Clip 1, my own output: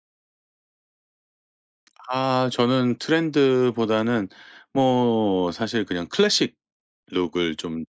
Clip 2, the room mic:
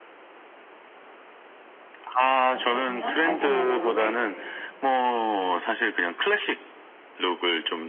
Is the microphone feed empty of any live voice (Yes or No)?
No